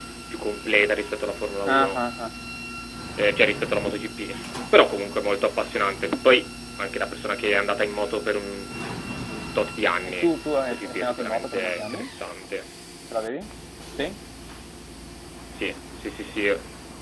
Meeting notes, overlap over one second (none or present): present